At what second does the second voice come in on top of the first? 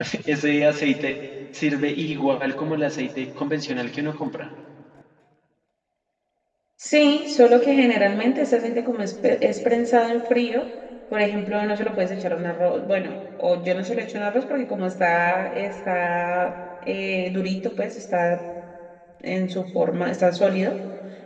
none

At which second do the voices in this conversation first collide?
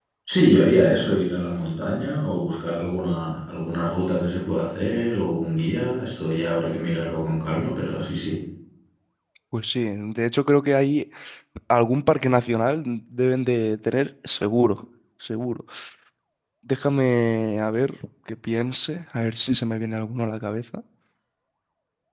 none

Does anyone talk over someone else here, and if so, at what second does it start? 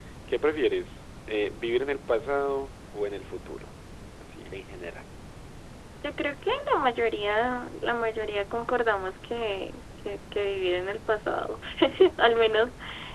none

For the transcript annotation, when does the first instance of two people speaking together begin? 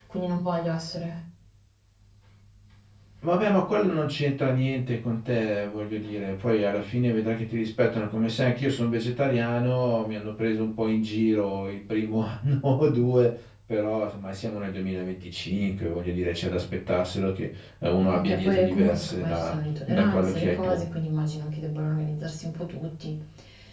18.1 s

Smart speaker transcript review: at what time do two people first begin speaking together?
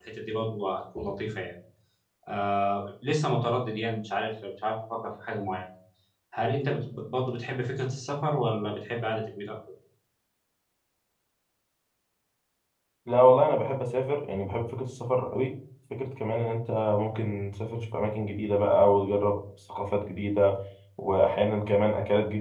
none

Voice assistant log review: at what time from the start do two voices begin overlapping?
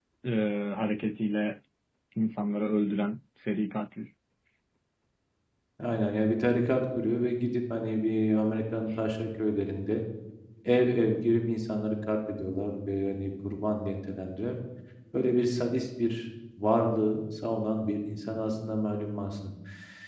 none

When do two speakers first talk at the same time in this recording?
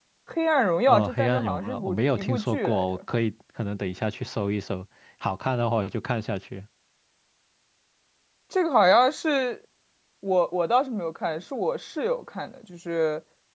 0.9 s

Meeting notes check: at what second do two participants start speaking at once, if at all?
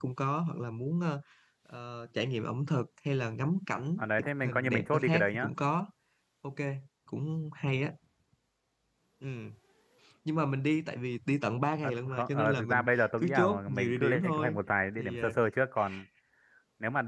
4.0 s

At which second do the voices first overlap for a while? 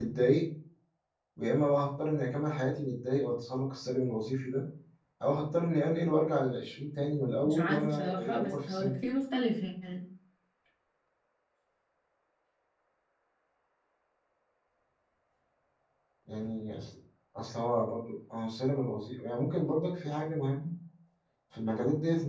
7.4 s

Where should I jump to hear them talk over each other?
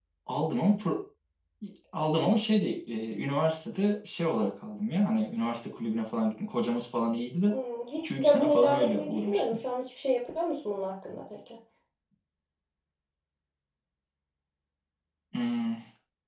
8.0 s

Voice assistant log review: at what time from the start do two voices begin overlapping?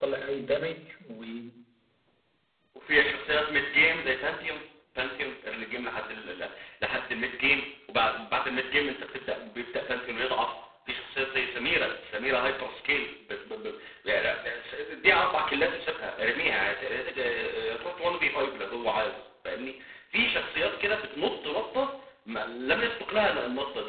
none

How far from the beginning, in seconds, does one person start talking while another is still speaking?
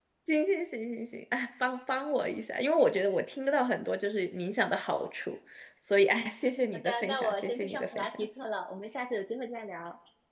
6.7 s

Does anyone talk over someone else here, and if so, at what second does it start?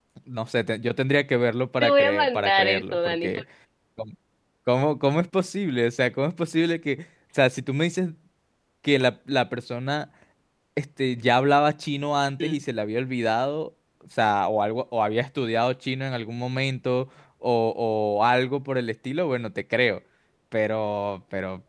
1.8 s

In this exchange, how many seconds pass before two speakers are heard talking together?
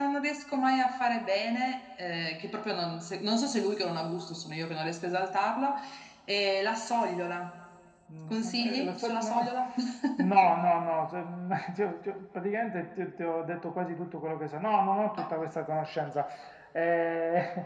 8.3 s

